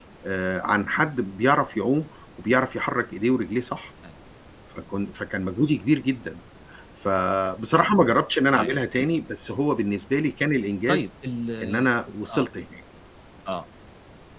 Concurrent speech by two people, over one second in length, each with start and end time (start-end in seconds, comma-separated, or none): none